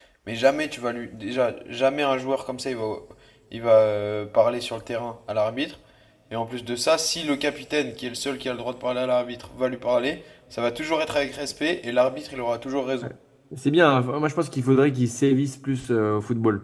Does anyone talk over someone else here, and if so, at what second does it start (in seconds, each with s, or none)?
none